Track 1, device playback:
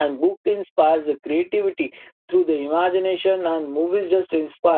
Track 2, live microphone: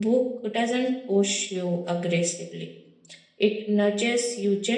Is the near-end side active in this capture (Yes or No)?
Yes